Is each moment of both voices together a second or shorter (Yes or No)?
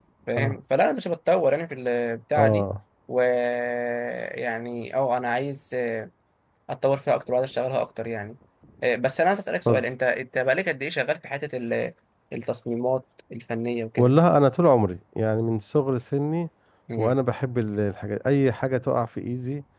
Yes